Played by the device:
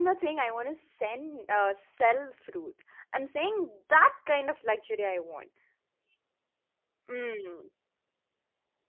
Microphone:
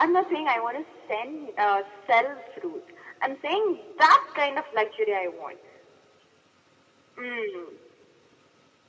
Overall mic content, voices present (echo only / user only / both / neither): echo only